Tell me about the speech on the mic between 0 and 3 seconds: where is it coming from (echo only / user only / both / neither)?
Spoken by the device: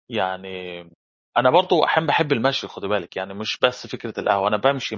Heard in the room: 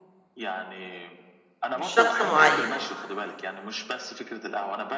both